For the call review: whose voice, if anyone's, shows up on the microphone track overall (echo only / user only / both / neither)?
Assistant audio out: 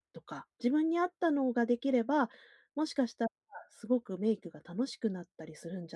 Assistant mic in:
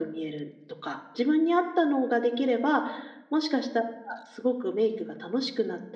echo only